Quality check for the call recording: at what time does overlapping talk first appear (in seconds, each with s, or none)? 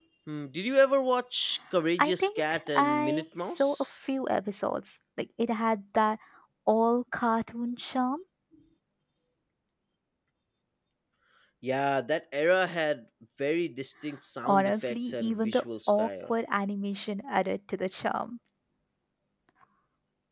2.0 s